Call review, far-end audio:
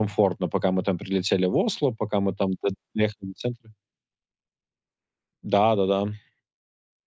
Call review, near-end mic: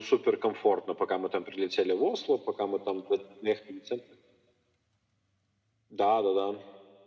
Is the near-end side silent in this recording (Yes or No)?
Yes